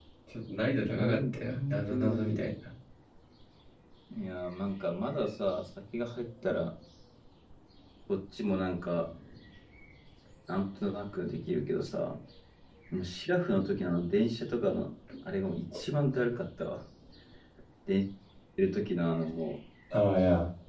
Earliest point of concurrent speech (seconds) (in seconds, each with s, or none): 0.8 s